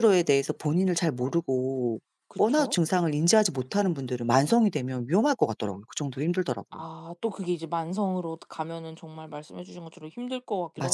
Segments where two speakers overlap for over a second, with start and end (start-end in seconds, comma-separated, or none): none